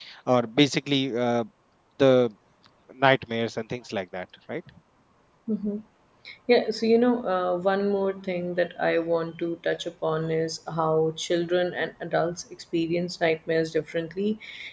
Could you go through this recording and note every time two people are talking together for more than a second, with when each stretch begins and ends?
none

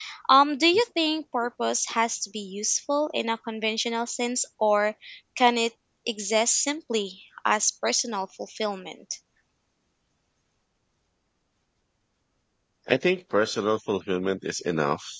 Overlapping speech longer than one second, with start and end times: none

